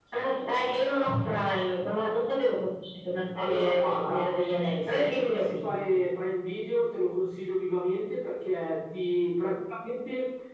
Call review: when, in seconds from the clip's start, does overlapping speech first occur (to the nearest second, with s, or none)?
3 s